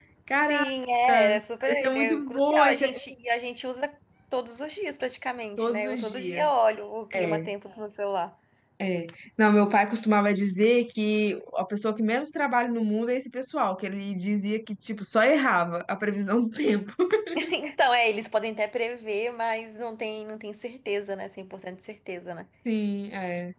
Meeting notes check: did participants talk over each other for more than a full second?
Yes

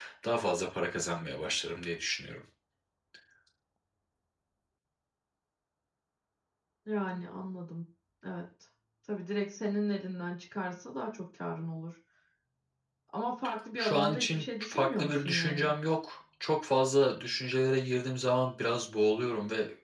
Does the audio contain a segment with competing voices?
Yes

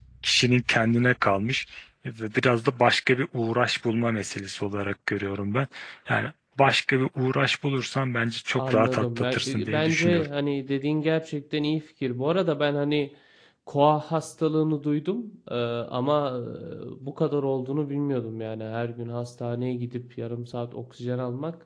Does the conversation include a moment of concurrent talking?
Yes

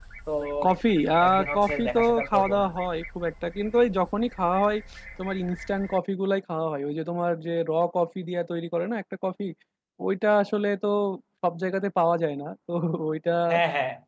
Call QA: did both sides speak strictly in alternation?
No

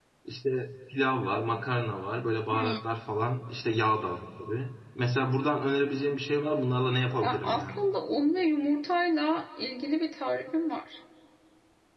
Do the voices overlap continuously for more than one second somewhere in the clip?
No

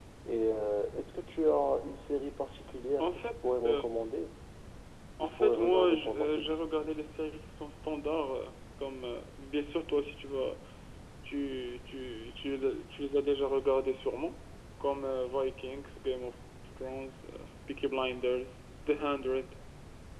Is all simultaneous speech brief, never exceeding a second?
No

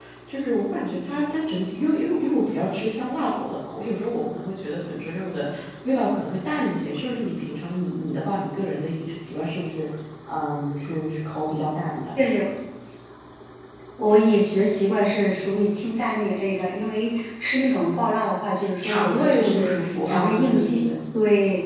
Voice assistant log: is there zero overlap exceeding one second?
No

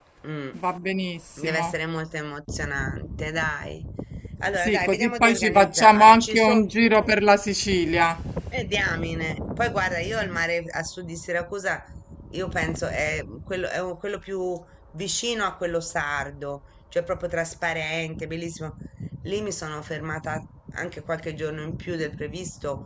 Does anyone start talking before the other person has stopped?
Yes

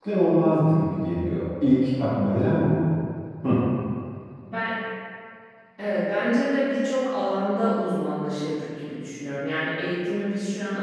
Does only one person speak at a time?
Yes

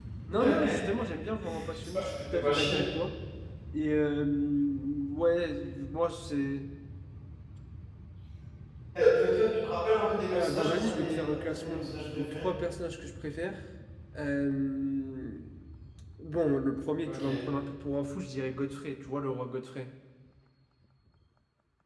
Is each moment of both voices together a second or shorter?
No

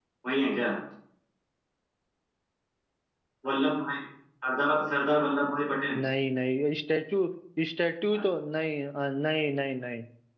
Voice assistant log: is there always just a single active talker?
Yes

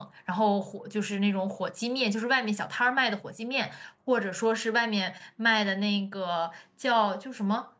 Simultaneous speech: No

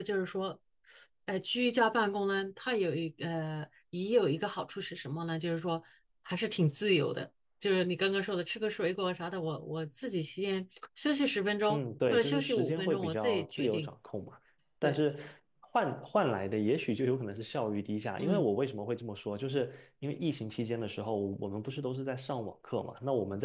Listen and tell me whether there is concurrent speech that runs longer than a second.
Yes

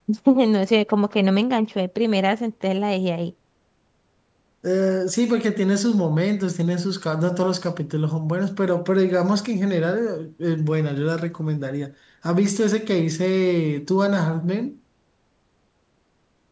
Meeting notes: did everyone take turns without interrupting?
Yes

